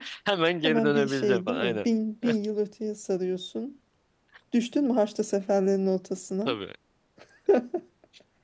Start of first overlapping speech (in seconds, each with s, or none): 0.6 s